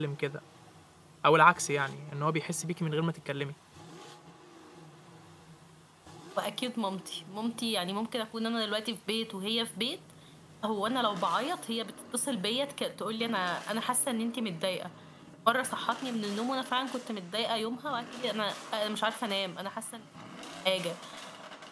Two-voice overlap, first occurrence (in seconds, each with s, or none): none